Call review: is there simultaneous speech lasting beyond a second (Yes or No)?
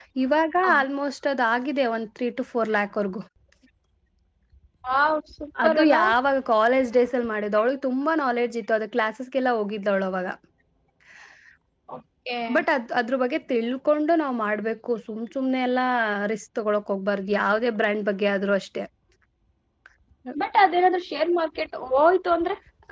No